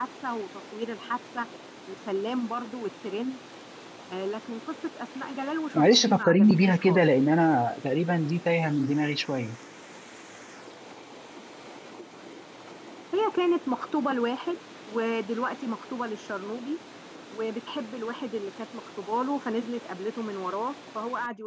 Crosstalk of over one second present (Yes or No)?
Yes